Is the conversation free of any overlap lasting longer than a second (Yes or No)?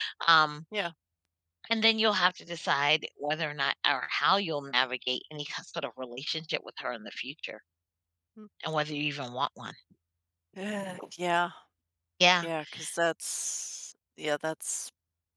Yes